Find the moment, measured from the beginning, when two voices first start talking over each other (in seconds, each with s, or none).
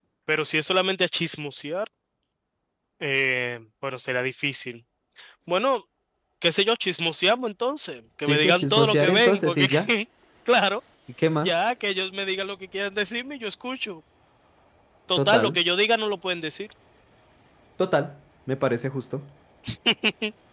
8.3 s